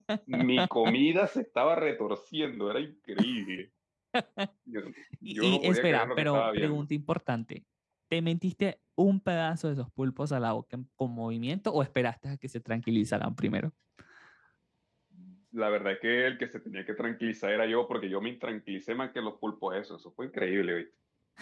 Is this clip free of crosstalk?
No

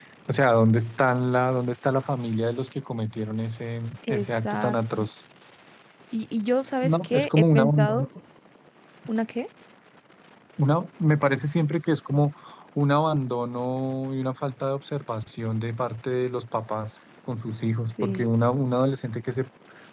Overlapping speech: Yes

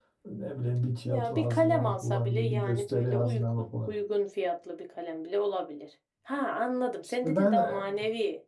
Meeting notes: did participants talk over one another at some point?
Yes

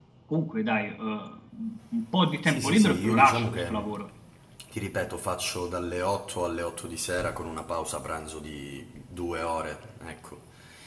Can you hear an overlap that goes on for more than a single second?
Yes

